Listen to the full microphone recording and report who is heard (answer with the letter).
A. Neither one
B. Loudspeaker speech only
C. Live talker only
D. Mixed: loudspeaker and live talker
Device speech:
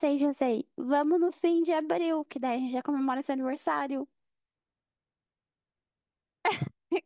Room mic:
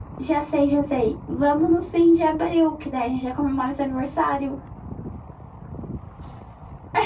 B